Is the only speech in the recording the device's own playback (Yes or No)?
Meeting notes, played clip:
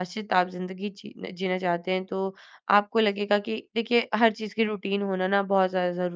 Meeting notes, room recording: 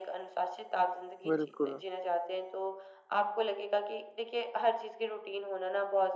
No